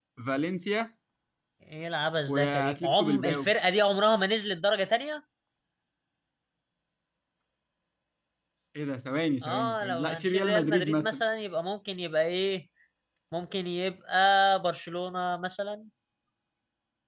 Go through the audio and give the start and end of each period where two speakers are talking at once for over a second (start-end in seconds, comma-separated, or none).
2.3-3.5, 9.4-11.2